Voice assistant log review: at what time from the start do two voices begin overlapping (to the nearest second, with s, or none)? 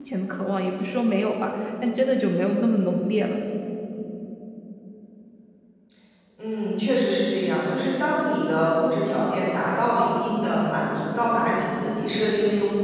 none